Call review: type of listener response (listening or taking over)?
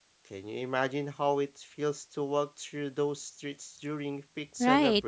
taking over